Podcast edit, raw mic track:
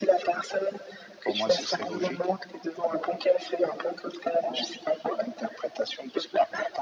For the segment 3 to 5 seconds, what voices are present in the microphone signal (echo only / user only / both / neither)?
echo only